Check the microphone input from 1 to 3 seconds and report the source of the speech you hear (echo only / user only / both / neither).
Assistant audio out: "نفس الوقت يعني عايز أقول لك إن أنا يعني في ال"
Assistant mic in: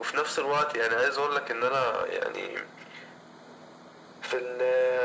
echo only